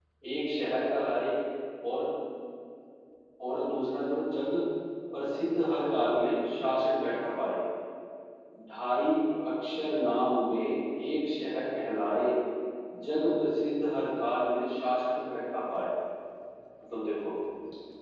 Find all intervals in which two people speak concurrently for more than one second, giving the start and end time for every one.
none

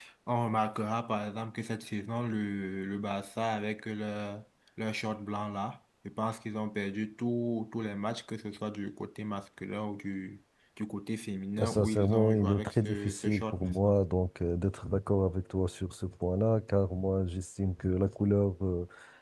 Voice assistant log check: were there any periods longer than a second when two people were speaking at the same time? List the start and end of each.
11.6-13.9

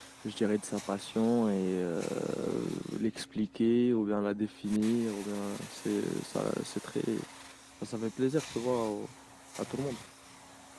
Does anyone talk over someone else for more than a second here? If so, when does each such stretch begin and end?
none

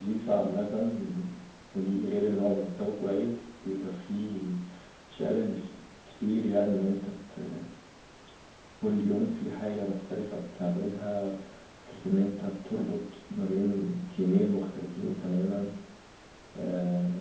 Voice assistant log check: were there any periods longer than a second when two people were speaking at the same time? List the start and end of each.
none

